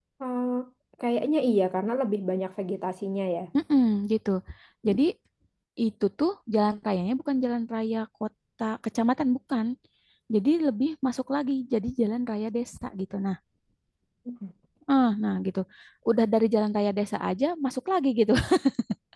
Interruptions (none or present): none